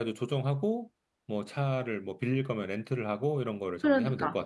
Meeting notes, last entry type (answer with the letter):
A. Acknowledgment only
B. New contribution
B